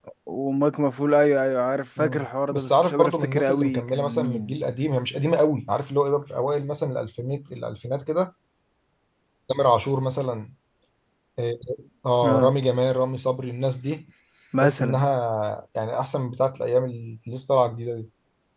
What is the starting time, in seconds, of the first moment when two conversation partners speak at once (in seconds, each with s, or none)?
2.0 s